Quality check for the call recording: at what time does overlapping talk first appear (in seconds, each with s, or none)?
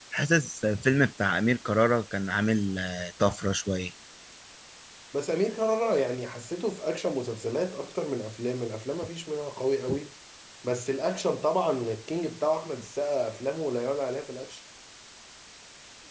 none